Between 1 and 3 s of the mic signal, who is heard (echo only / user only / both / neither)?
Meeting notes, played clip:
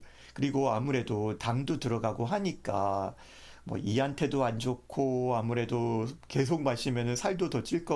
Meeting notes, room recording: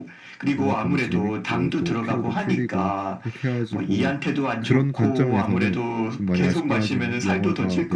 both